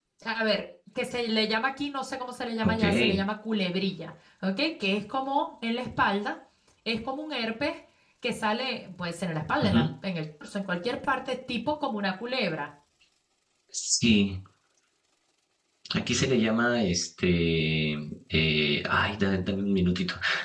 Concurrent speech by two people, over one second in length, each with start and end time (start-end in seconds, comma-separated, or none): none